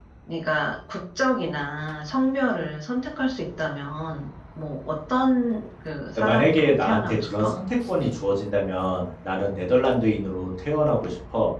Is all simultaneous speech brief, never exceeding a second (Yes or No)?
No